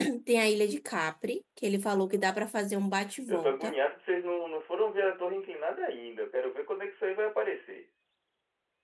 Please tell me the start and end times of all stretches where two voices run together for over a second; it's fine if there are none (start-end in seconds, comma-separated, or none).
none